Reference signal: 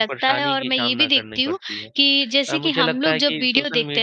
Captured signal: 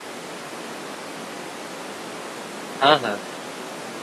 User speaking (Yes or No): Yes